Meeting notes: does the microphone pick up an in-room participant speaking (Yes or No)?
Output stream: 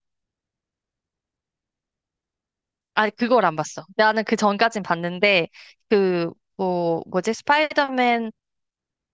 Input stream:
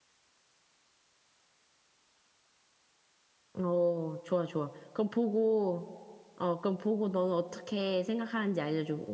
Yes